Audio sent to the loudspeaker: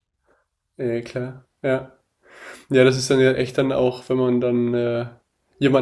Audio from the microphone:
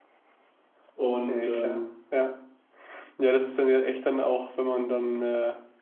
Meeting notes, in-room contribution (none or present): present